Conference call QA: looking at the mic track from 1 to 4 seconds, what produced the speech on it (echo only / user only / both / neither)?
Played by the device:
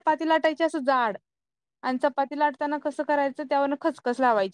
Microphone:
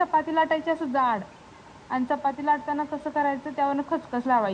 echo only